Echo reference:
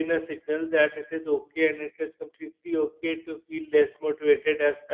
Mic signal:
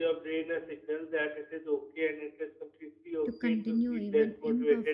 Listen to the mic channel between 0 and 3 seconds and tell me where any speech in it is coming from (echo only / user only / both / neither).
echo only